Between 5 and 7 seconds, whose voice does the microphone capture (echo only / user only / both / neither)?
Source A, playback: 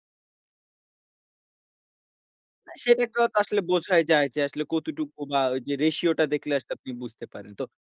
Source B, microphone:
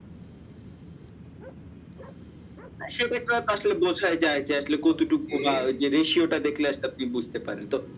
both